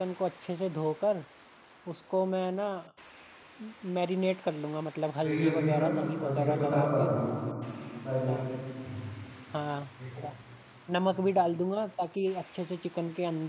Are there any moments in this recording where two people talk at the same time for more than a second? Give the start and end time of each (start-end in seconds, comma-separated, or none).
5.2-7.1